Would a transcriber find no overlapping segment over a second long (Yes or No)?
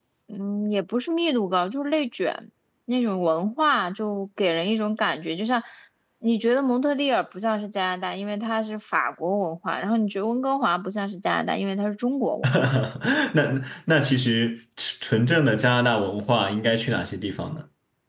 Yes